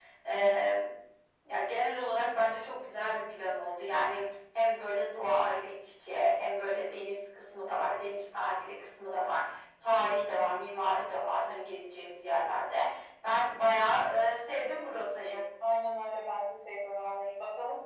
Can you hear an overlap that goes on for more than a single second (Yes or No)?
No